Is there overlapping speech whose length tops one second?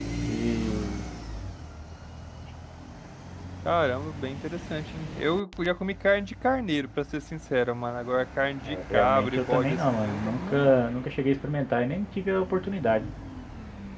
Yes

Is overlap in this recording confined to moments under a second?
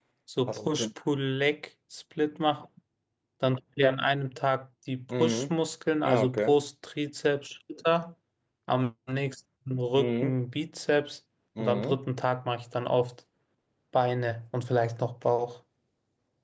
Yes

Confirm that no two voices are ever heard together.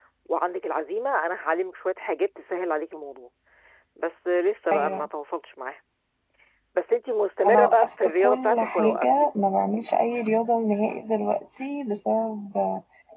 No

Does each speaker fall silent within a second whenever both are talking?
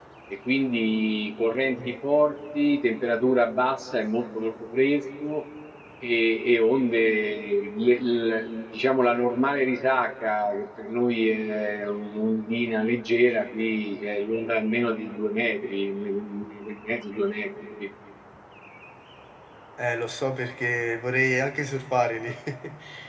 Yes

